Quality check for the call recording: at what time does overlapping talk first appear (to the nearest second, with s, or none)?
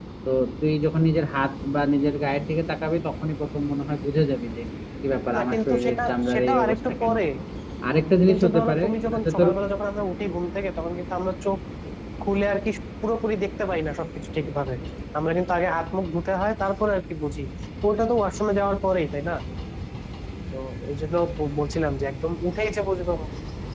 5 s